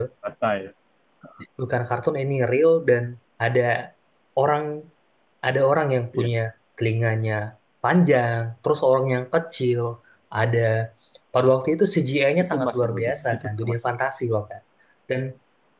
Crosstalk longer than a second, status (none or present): present